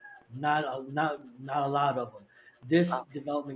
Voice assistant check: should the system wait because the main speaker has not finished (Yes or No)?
Yes